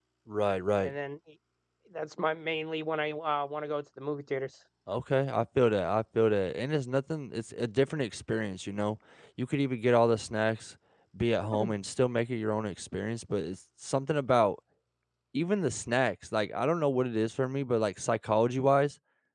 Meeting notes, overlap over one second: none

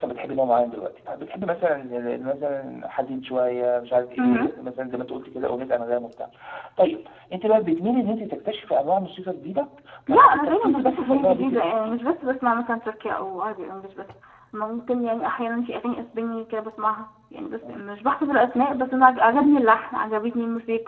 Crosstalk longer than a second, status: present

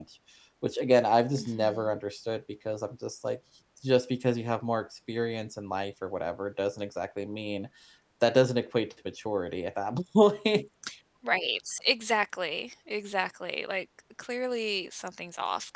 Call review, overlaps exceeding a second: none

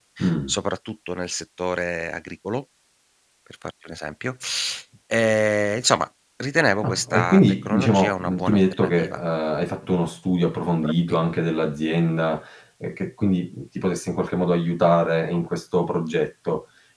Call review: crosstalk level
present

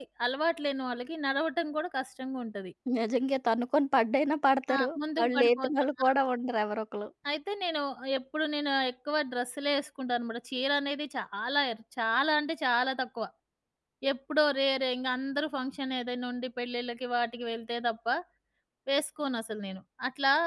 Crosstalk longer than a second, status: present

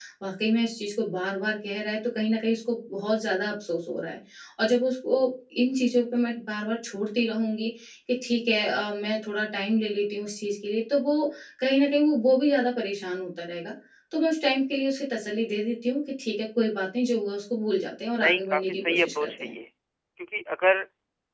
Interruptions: present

